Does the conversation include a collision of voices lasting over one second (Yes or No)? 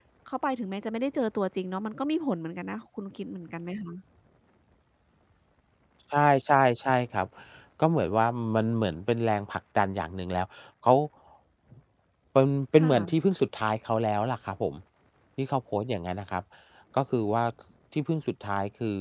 No